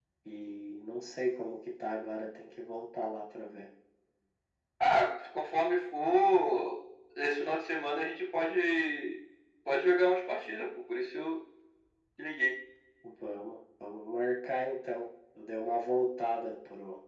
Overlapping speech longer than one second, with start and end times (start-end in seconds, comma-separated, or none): none